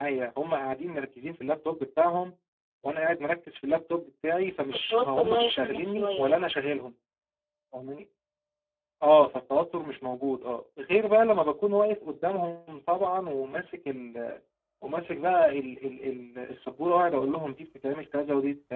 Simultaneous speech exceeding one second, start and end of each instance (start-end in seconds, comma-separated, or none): 4.9-6.4